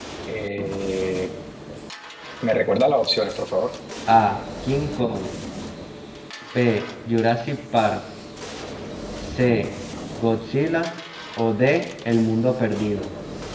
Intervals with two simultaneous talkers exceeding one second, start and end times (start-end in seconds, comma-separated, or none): none